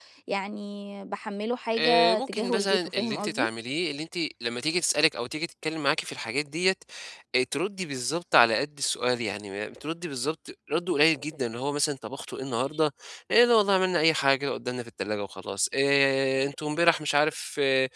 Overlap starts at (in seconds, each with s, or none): 1.7 s